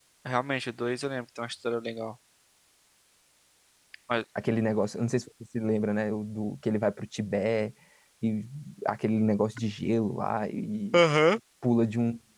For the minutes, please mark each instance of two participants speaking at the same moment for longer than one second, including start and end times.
none

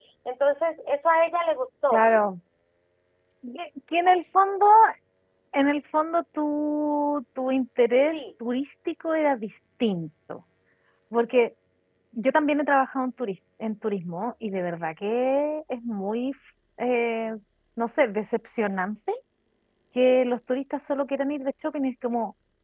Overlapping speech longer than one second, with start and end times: none

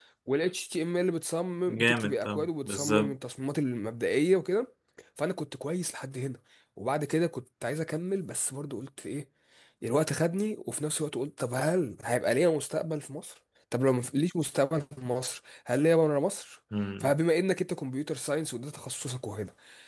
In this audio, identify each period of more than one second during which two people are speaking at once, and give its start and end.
1.7-3.1

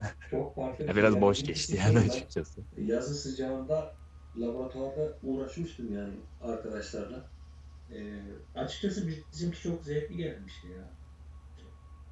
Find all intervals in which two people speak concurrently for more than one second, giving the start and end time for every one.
0.8-2.2

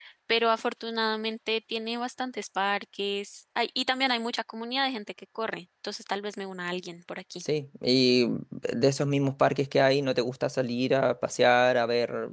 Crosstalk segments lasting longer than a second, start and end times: none

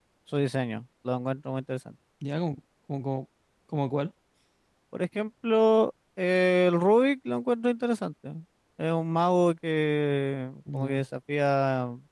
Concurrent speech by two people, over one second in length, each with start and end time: none

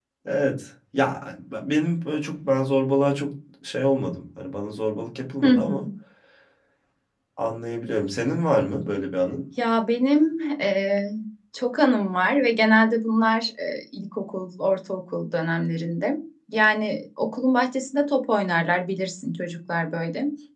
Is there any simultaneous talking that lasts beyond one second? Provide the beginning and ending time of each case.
none

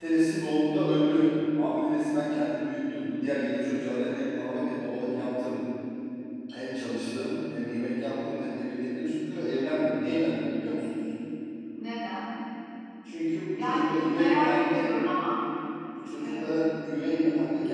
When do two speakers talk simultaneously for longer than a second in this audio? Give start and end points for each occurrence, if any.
13.6-14.9

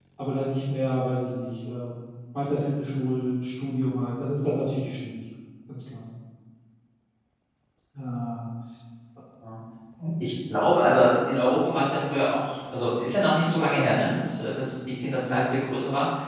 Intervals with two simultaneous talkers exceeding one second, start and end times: none

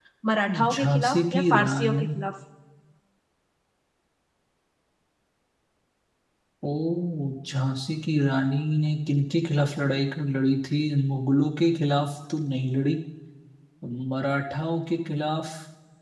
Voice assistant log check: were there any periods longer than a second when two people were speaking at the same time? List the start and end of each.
0.8-2.1

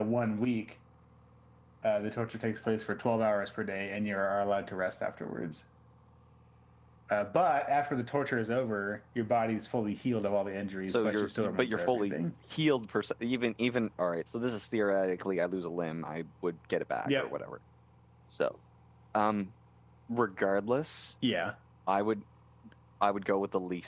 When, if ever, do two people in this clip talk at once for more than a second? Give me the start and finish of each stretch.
10.9-12.2

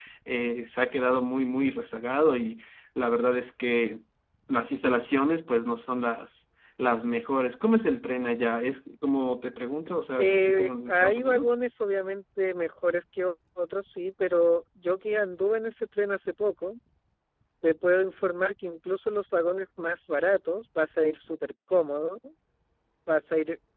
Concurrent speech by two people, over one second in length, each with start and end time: 10.2-11.5

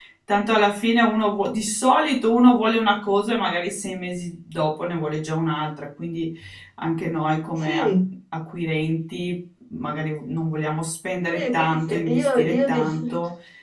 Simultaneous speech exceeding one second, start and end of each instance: 11.3-12.9

